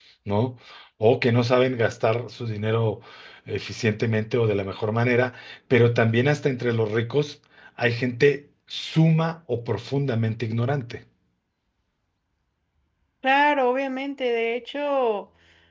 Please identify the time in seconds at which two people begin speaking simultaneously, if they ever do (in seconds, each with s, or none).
none